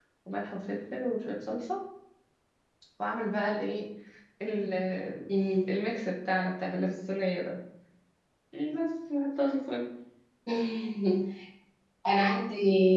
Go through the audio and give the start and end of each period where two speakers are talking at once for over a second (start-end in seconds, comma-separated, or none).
none